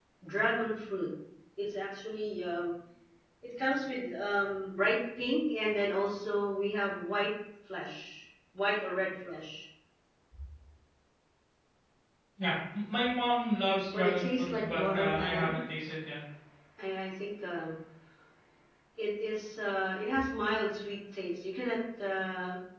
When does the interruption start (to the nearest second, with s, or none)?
14 s